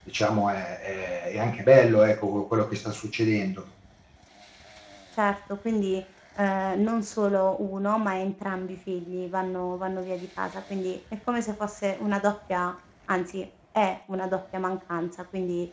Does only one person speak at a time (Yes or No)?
Yes